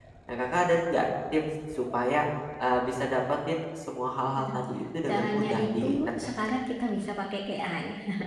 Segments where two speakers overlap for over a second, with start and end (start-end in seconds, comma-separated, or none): 5.1-6.3